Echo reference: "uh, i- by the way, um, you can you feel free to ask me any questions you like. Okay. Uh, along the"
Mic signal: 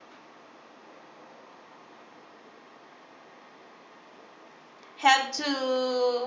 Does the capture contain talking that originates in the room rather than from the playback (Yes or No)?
Yes